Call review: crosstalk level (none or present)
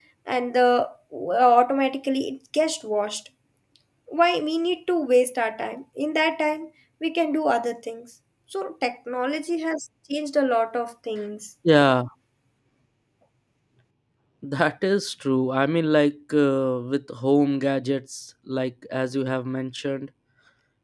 none